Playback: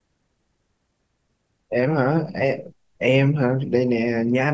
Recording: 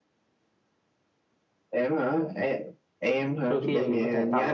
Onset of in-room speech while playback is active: 3.5 s

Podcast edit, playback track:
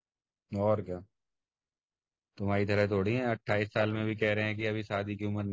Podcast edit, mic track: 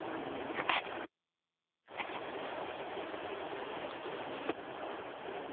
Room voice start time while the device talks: none

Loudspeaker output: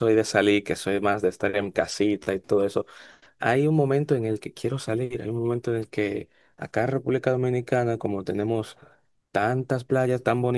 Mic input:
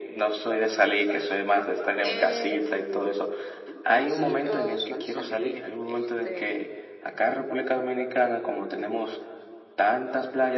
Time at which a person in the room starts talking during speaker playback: 2.0 s

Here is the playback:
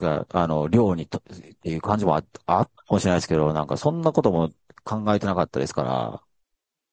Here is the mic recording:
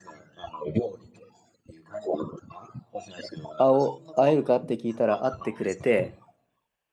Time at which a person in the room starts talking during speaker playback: 3.6 s

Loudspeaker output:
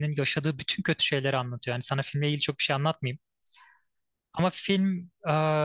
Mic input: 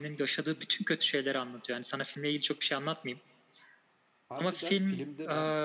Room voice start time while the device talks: 4.3 s

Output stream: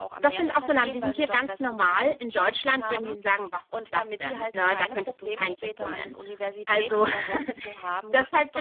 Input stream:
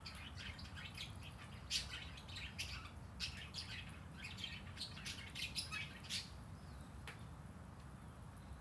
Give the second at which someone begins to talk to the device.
none

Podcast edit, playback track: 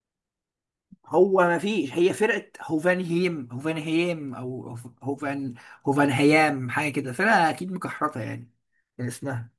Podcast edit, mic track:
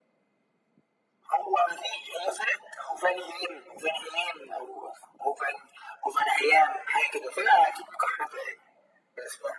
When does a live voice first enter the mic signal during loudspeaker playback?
none

